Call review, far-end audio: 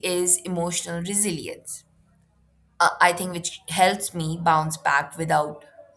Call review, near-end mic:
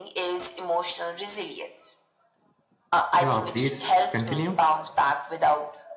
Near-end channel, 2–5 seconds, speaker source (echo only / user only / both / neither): both